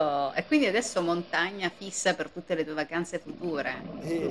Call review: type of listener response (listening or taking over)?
taking over